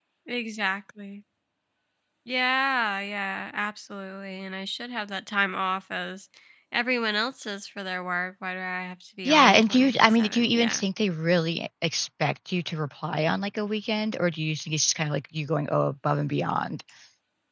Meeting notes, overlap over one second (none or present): present